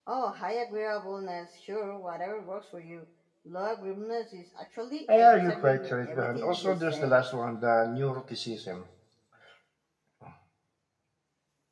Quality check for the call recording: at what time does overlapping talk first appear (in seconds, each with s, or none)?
5.1 s